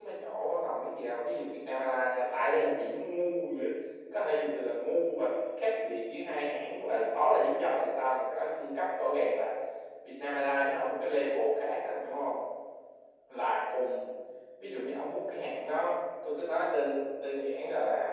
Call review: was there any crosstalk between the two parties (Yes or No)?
No